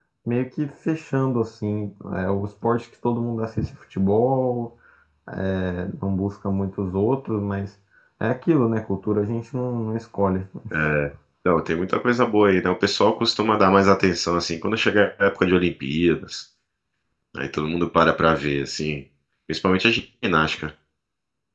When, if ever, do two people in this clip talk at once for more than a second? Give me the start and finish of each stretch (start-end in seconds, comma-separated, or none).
none